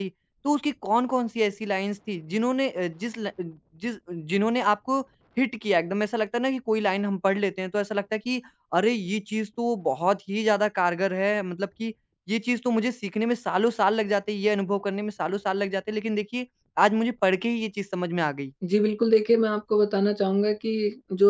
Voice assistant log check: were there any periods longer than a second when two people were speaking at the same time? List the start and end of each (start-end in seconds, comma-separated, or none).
none